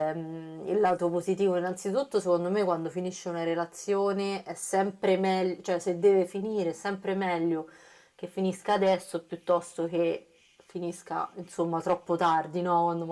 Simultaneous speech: No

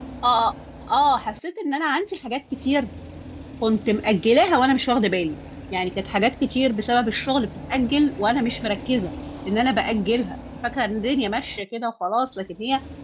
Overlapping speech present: No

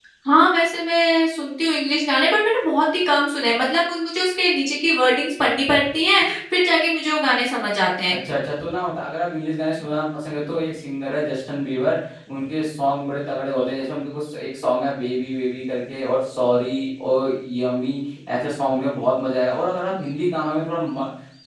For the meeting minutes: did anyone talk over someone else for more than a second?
No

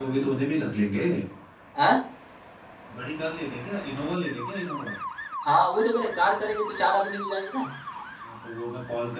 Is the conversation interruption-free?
Yes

